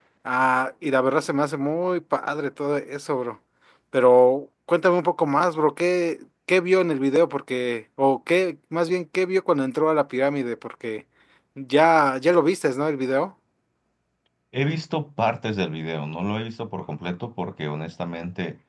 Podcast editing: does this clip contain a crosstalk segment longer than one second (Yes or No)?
No